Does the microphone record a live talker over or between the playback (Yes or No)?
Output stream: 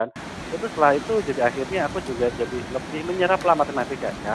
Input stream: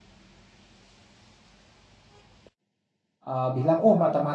Yes